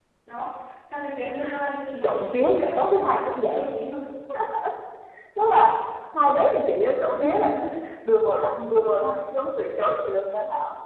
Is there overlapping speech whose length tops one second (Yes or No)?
Yes